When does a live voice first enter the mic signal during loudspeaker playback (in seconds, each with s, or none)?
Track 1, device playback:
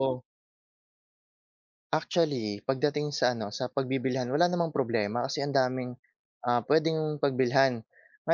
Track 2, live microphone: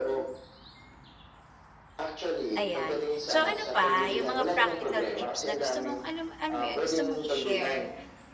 2.6 s